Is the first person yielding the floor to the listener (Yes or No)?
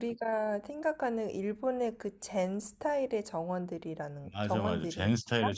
Yes